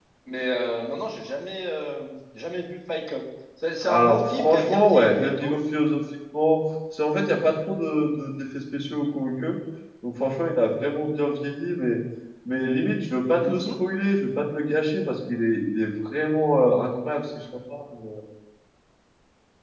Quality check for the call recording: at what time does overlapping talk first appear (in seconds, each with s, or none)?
3.9 s